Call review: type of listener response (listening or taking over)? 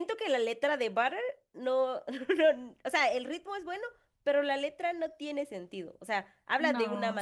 listening